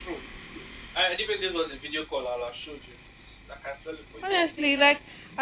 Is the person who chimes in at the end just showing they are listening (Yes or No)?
No